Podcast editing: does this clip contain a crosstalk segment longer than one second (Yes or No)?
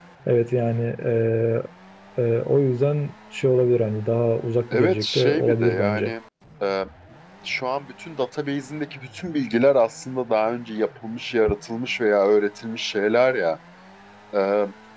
Yes